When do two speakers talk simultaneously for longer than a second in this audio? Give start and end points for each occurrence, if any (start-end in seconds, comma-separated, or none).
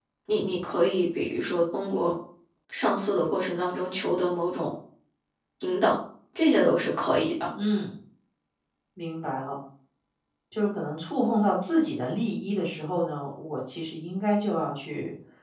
none